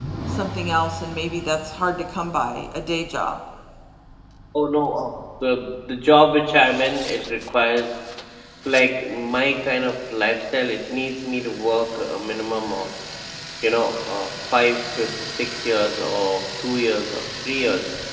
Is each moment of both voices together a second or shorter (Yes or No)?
Yes